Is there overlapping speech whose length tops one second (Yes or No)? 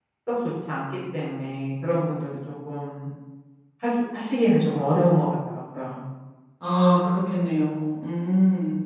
No